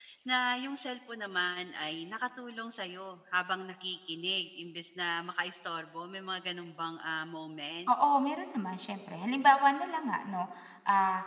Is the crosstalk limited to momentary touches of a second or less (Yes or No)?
Yes